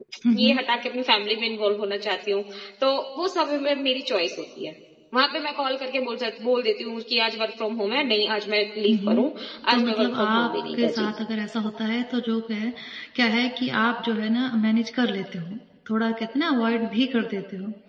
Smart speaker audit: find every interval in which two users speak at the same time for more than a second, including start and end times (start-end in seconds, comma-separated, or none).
9.7-11.1